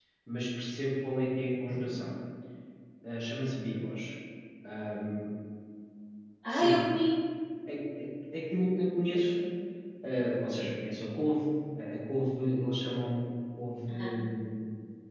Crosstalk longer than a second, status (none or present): none